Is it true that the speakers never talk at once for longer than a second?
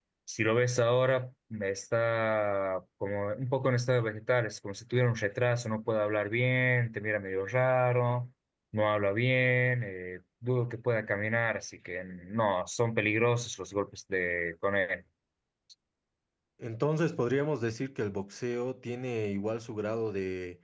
Yes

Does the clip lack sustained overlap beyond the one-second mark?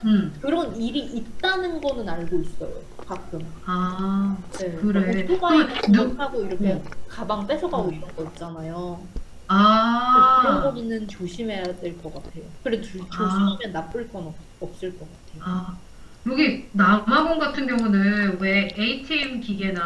No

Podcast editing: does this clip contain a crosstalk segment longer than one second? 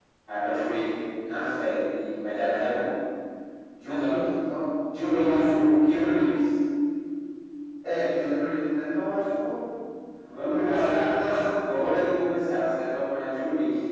Yes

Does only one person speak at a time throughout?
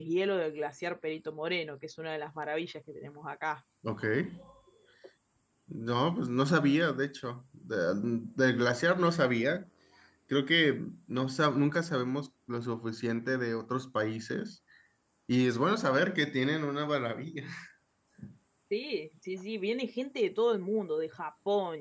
Yes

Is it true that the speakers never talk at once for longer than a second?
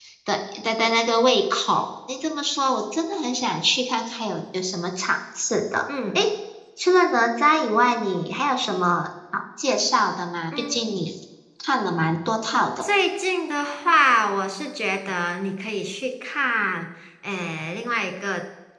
Yes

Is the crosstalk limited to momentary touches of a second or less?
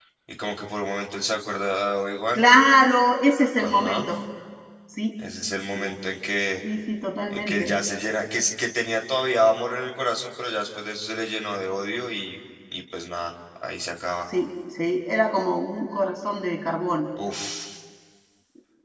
Yes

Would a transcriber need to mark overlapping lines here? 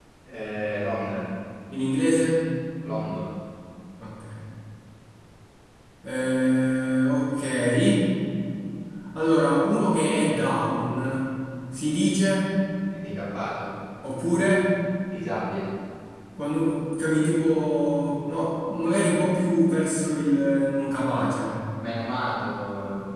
No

